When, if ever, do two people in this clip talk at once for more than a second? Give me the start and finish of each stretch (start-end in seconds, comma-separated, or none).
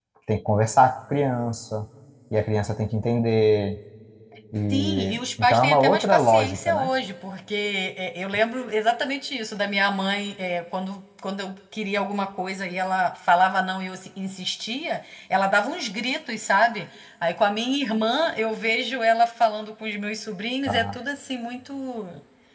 4.7-6.9